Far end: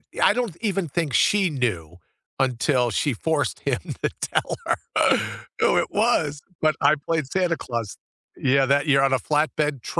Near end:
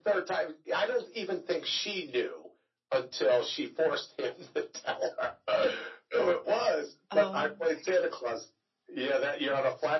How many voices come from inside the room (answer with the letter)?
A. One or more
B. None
A